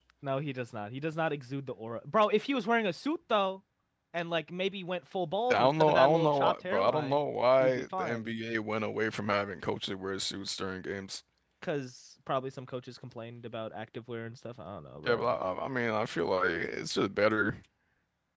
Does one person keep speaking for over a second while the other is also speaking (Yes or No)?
Yes